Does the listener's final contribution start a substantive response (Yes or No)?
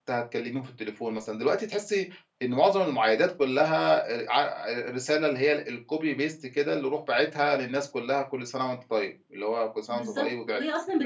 Yes